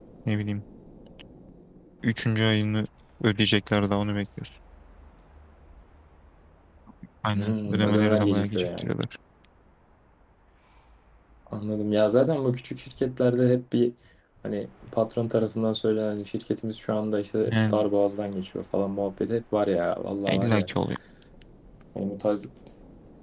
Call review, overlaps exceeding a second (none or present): present